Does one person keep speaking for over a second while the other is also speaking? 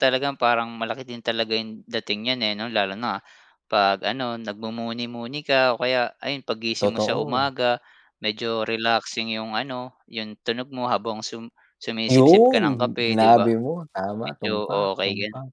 Yes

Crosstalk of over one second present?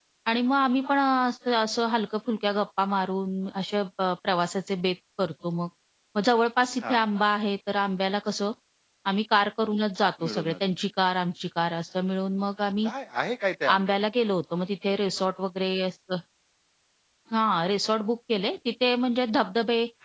No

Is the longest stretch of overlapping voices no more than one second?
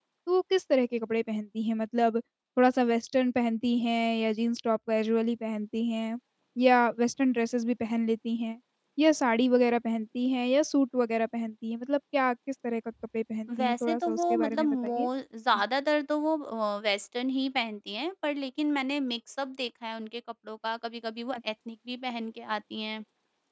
No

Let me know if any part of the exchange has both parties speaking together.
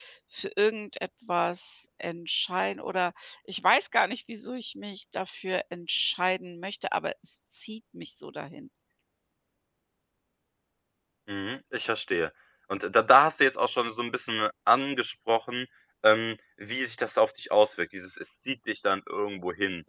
No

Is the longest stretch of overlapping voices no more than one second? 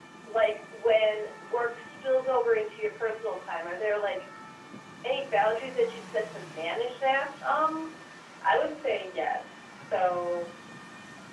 Yes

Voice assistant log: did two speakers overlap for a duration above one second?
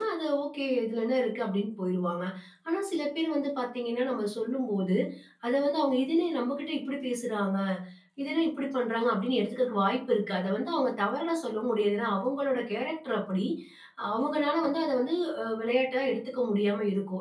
No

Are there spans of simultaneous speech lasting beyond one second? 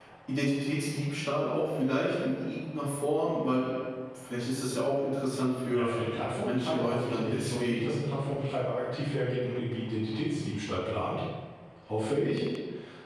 Yes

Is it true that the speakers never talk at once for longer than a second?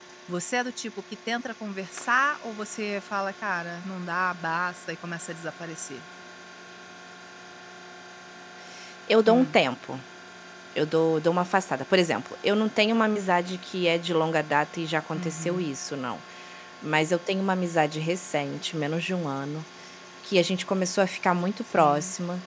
Yes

